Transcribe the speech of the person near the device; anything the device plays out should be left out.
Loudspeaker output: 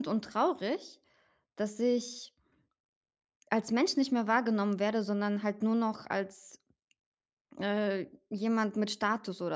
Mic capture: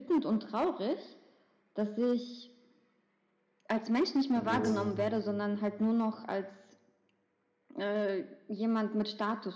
Wenn du jetzt,

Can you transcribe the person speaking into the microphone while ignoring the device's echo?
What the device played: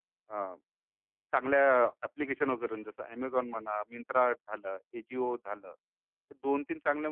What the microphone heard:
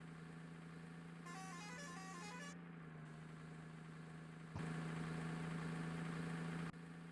none

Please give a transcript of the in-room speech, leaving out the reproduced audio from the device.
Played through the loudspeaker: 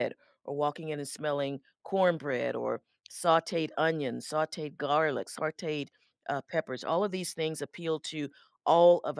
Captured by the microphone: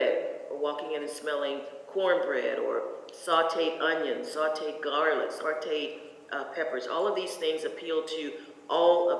none

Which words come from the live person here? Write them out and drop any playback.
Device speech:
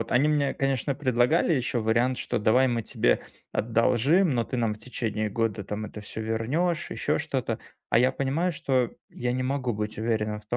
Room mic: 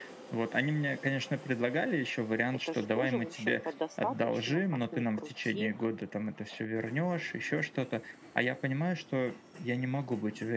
Это же тоже, в общем-то, достаточно, как ни крути,

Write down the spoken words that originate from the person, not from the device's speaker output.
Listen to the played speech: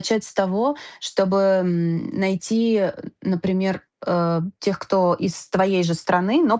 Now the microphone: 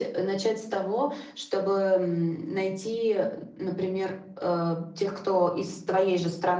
none

